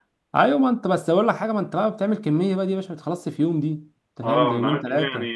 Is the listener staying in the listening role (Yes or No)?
No